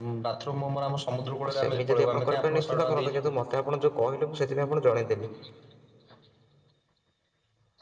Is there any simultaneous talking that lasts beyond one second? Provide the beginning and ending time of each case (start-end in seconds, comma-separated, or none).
1.5-3.3